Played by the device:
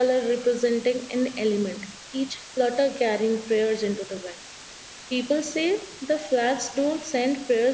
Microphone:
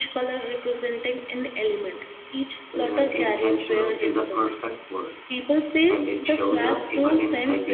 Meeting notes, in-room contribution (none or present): present